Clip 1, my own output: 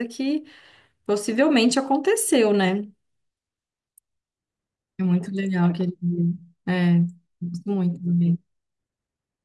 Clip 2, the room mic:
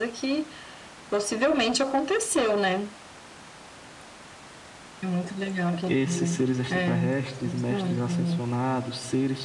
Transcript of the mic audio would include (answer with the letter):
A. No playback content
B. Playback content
B